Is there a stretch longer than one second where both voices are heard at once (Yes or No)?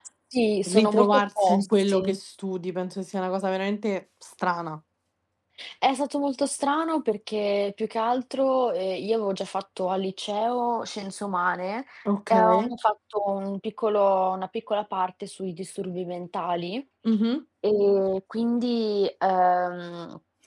Yes